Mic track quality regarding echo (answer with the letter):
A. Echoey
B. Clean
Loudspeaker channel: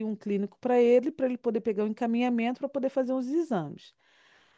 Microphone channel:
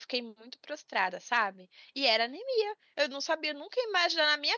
B